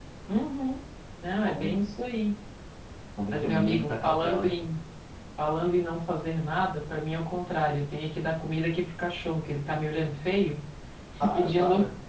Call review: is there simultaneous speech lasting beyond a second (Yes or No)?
Yes